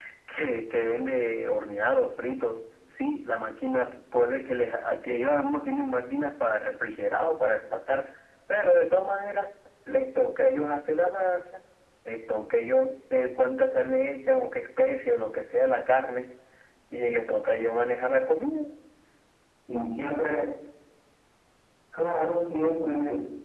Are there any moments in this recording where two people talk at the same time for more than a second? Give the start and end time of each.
none

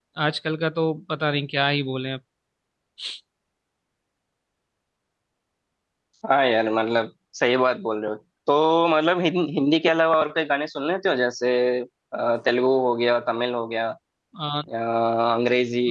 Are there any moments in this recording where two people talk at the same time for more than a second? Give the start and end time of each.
none

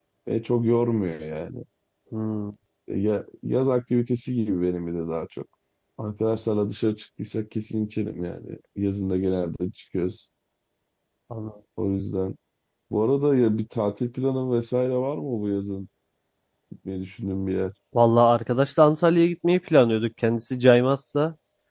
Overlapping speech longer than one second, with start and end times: none

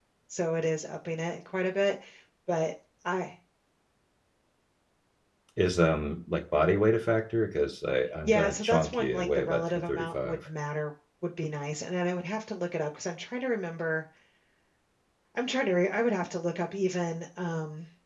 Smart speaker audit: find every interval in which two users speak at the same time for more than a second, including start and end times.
8.2-10.5

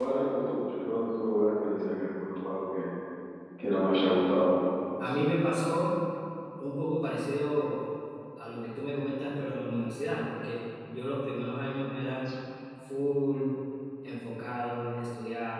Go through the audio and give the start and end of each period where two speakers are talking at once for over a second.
none

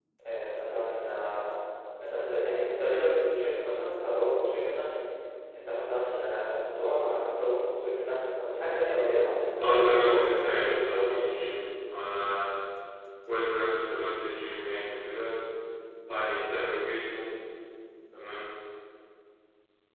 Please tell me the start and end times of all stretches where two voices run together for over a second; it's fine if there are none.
9.6-11.5

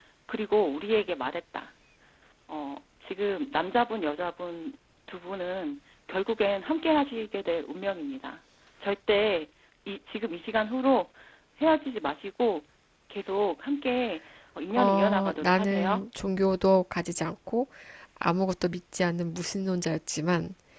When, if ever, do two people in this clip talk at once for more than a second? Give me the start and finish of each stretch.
14.8-16.0

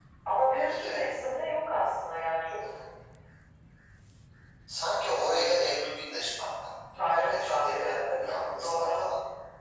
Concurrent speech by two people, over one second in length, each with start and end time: 7.0-9.0

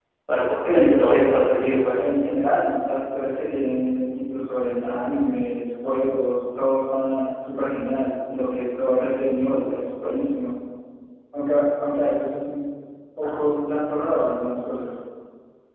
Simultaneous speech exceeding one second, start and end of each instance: 0.6-2.0

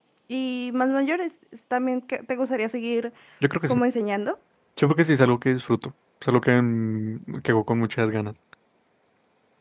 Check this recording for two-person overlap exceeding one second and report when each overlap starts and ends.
none

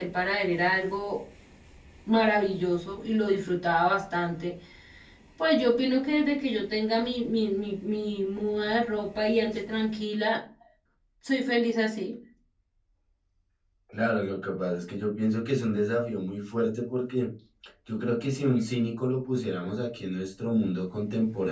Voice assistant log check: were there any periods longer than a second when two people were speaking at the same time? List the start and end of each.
none

